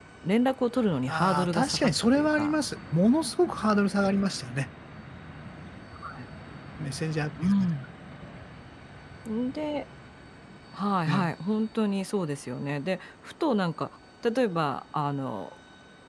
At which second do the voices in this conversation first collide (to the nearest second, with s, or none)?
1 s